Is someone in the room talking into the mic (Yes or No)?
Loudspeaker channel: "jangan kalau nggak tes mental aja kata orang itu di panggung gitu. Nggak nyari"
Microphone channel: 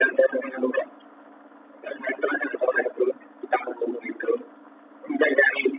No